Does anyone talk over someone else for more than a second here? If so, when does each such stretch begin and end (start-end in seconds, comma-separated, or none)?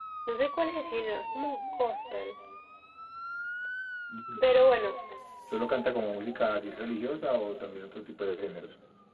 none